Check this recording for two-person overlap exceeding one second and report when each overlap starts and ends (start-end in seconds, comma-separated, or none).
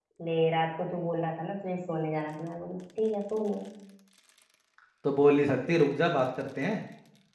none